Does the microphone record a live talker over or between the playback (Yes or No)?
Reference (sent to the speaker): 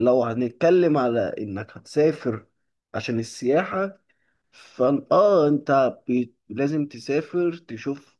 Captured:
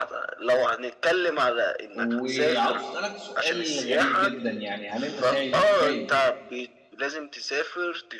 Yes